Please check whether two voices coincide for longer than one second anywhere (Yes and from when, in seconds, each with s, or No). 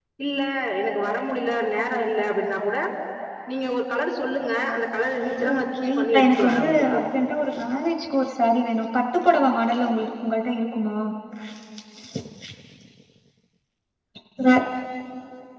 Yes, from 5.4 s